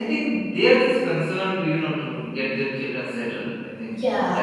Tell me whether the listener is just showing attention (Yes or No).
No